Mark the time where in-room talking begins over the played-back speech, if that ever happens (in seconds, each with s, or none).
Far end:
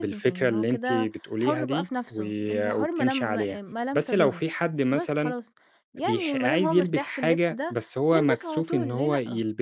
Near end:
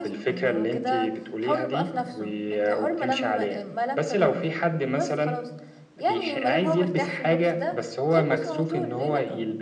none